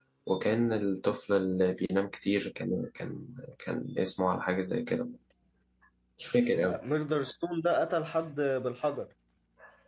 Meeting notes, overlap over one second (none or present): none